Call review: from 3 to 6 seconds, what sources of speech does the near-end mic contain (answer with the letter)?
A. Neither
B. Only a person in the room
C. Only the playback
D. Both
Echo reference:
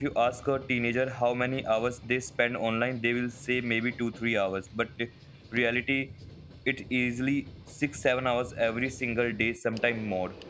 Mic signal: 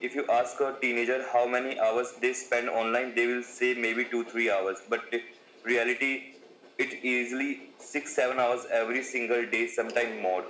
C